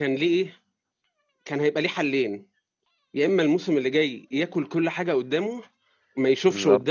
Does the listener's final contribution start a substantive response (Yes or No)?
No